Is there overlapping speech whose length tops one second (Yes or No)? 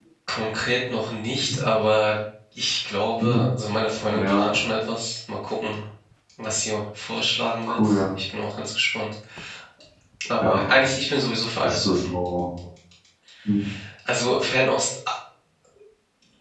No